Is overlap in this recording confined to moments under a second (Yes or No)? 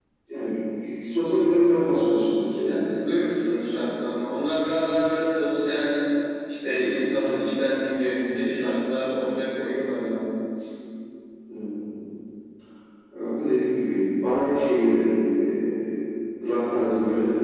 Yes